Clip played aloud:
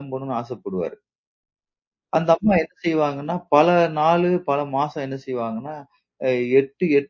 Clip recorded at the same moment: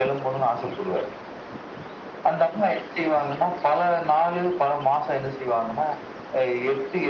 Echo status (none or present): present